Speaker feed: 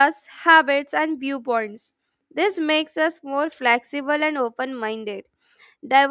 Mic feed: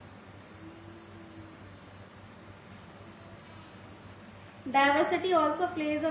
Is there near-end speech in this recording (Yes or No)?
Yes